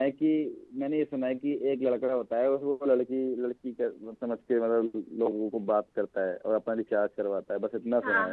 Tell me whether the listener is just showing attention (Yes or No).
No